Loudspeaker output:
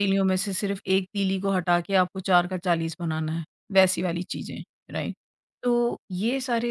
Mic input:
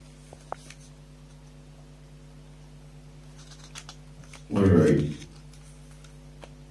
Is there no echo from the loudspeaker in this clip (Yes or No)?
Yes